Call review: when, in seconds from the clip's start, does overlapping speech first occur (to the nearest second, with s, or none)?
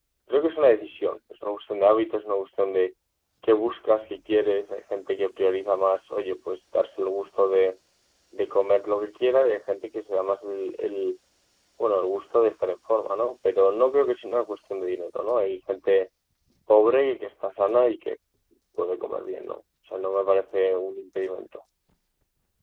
none